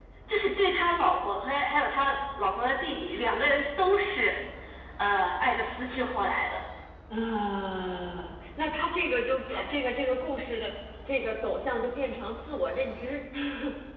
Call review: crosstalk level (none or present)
none